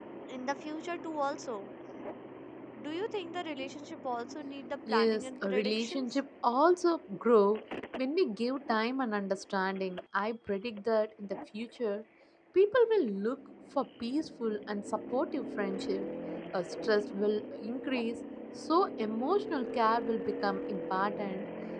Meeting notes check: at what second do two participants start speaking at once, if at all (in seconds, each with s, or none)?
4.9 s